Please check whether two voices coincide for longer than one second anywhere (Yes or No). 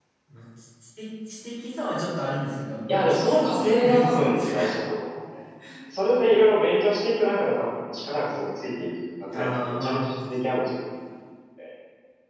Yes